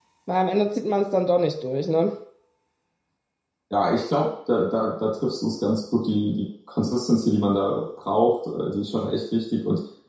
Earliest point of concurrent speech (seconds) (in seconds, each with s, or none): none